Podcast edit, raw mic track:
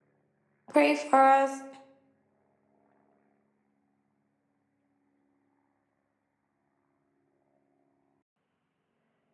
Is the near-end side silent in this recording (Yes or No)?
No